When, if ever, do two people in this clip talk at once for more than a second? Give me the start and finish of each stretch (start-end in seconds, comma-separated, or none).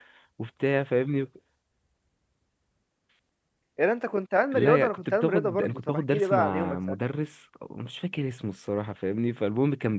4.5-6.8